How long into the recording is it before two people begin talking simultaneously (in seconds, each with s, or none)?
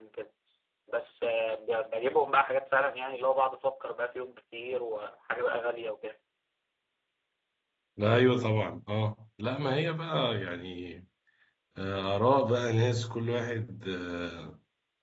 none